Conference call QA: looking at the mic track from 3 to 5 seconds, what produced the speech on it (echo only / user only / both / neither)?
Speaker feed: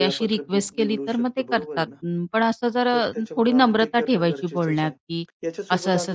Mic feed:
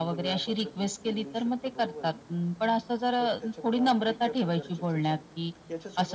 echo only